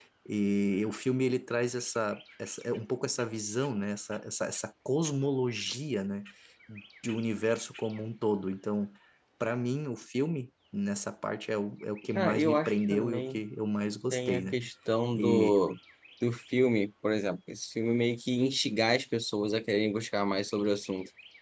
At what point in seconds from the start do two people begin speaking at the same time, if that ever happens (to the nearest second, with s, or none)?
12 s